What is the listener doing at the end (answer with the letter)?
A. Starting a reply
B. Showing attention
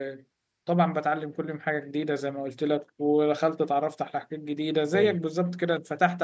B